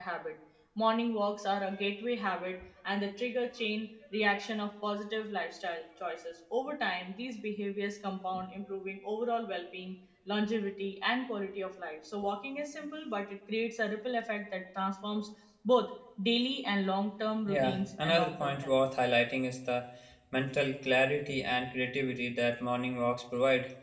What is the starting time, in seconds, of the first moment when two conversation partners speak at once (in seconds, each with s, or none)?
17.5 s